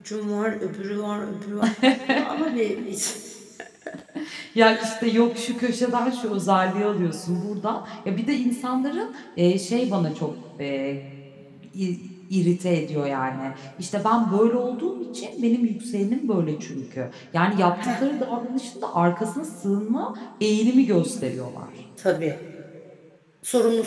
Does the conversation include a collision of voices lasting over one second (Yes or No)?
No